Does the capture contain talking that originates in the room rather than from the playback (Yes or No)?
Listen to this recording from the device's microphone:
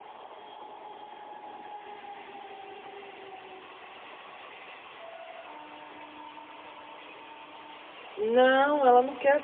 Yes